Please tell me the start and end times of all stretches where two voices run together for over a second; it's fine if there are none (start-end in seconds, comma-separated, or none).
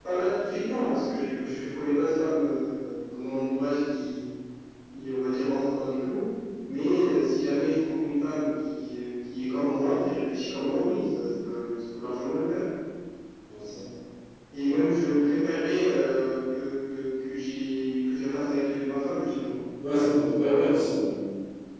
none